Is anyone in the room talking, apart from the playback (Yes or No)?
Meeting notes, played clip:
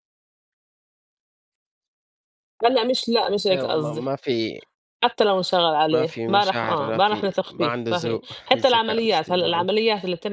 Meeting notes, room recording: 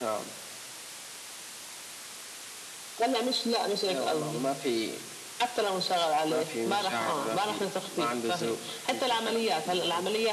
No